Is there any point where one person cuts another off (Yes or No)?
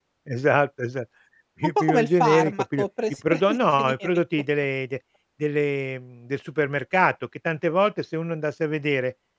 Yes